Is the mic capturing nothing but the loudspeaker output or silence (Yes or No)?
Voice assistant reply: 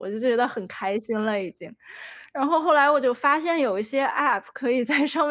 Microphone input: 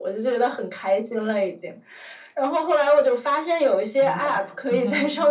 No